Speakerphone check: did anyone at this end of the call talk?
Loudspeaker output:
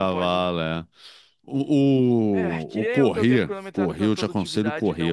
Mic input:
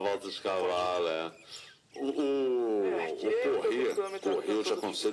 No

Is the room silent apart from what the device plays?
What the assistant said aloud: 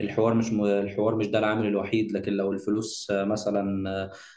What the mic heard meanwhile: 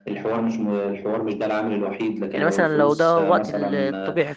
No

